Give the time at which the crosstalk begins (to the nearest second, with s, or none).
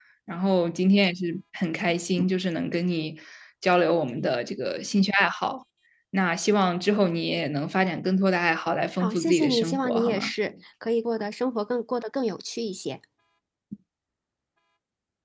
9 s